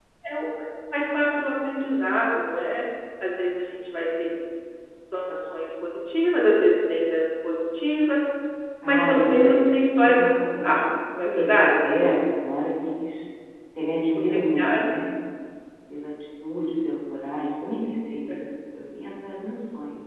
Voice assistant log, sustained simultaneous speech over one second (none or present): present